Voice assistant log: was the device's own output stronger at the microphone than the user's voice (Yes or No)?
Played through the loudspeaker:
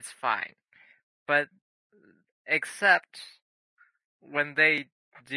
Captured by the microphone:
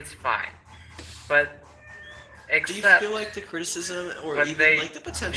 Yes